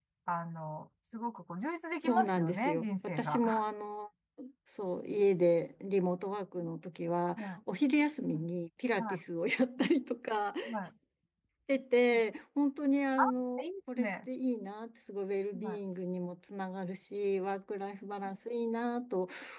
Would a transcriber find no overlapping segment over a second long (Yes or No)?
No